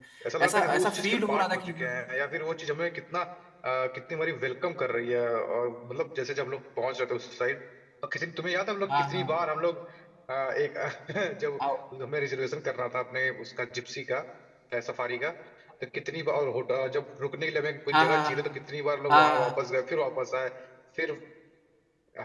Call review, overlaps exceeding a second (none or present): present